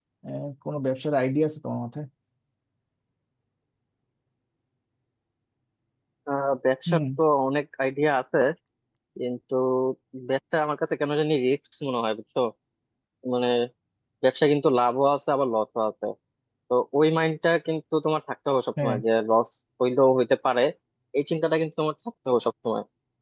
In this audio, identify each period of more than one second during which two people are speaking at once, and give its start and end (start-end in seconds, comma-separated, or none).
none